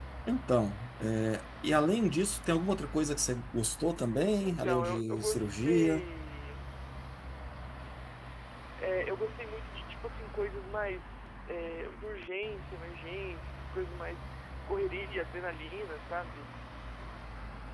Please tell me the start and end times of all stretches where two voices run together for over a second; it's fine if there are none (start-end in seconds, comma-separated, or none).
4.4-6.0